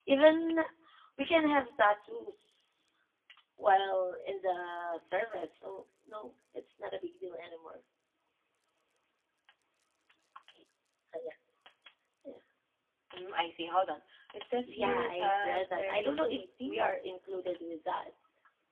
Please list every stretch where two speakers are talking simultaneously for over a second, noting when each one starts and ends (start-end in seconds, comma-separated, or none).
14.7-16.8